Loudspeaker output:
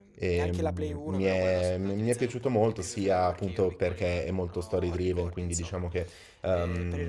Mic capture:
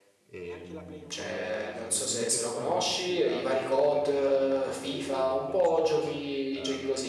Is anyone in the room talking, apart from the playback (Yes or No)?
Yes